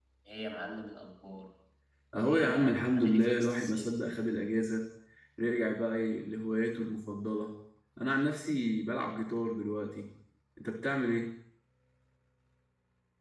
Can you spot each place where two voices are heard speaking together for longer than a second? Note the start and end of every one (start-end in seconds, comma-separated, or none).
2.2-3.9